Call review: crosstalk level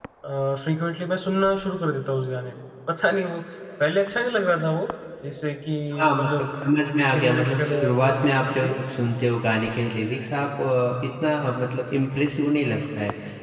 present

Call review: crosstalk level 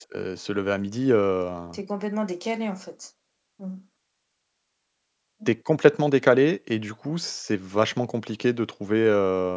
none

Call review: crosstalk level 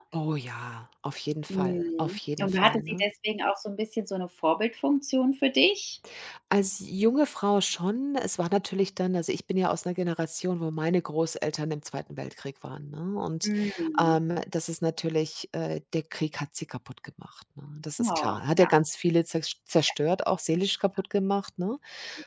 present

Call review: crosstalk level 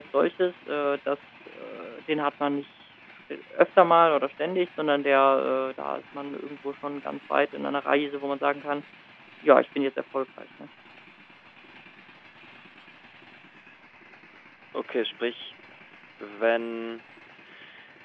none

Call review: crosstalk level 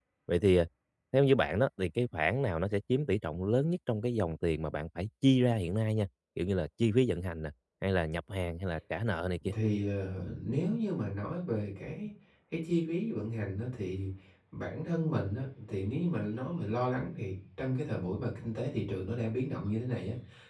none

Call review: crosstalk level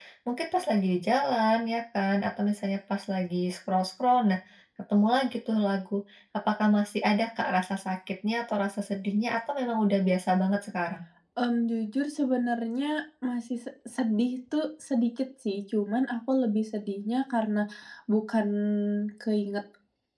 none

